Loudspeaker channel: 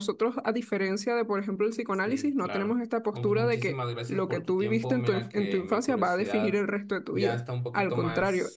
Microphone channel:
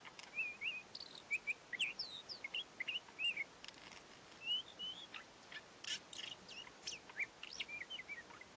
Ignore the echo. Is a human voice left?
No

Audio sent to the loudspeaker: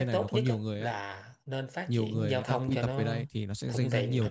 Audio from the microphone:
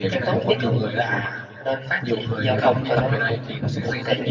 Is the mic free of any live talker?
Yes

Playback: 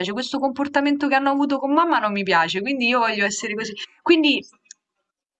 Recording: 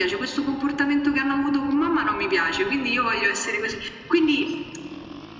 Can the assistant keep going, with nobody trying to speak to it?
Yes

